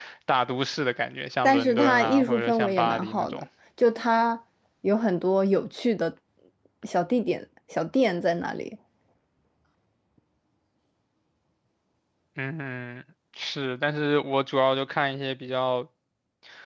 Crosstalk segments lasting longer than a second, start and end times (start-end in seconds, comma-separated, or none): 1.4-3.4